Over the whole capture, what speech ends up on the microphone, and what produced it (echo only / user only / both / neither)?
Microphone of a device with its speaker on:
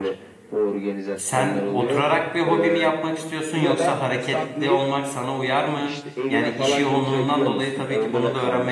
both